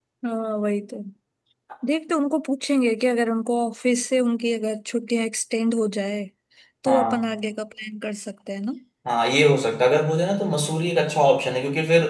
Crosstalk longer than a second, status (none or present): none